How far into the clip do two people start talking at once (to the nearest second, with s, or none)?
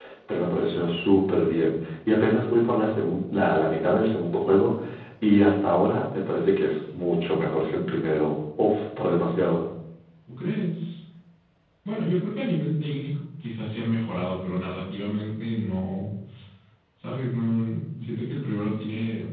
none